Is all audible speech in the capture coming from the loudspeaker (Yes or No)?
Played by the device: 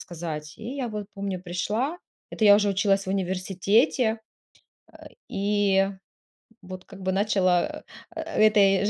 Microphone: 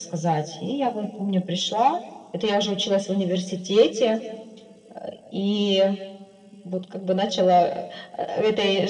Yes